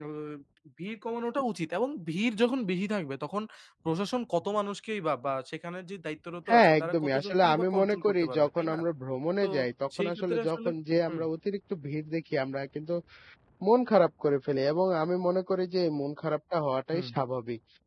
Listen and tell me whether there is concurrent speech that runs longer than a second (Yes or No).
Yes